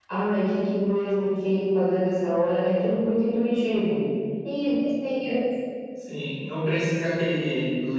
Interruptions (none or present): none